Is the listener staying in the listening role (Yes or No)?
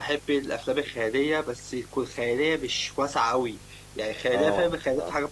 Yes